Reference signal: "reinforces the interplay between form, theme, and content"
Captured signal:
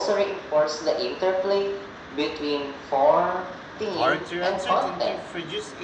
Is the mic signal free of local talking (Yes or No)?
No